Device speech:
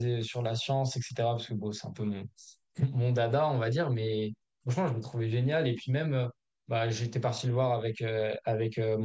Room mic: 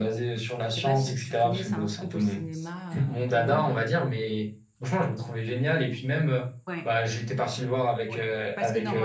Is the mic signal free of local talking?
No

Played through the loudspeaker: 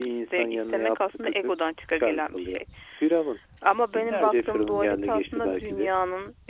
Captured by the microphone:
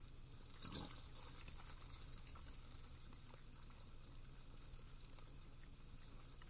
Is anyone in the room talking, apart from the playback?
No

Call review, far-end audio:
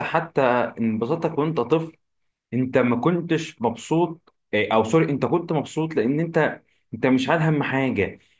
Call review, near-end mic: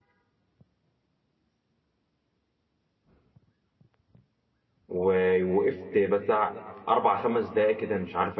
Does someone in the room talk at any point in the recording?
Yes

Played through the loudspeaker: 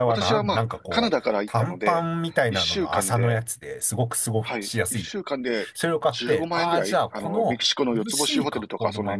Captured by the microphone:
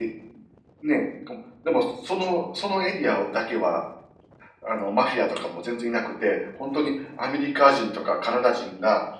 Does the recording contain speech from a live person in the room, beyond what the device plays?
Yes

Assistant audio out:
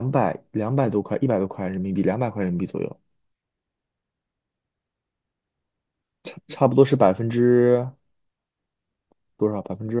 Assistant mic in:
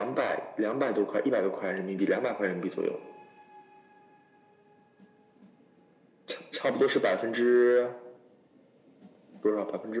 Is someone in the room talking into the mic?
No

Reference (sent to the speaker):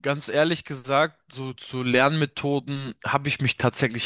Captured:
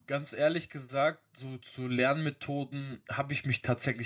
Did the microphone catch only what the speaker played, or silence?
Yes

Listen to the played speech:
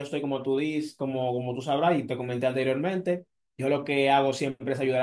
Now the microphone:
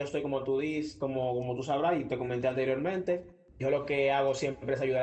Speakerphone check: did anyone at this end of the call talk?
No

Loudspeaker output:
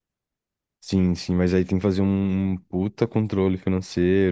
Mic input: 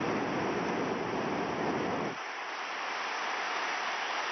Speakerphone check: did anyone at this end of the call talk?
No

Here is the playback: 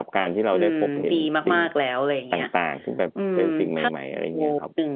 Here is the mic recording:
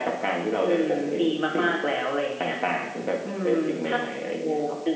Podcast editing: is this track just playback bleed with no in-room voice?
Yes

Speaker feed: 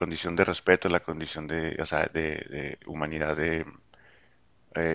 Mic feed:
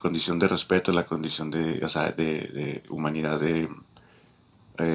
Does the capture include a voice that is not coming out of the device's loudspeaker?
No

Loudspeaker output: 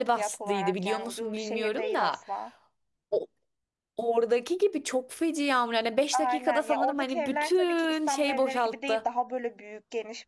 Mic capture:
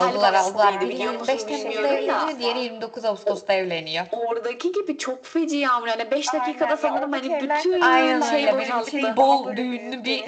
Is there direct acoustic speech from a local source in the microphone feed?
Yes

